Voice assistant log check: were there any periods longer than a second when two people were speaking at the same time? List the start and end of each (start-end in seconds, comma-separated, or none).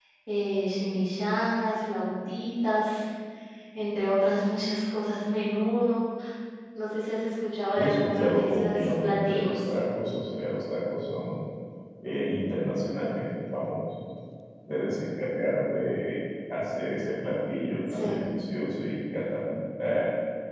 7.8-9.6